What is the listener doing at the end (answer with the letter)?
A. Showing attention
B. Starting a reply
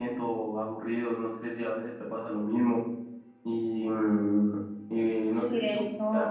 B